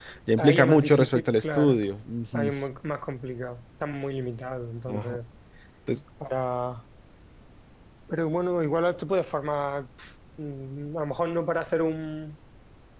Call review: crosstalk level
present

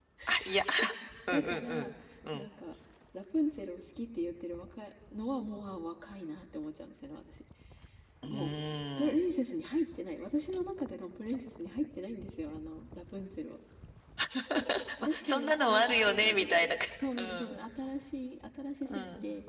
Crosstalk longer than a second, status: present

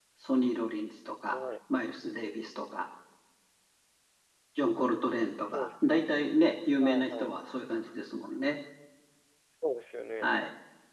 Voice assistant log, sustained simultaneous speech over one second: none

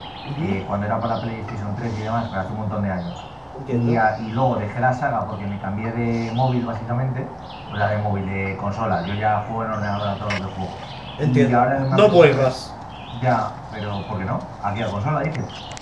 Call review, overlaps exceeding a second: present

